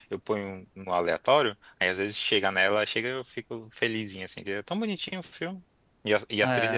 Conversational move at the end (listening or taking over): taking over